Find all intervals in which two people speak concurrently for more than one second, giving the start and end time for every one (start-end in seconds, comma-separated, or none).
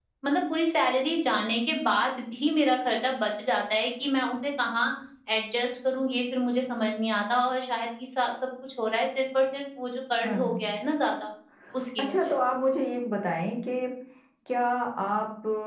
none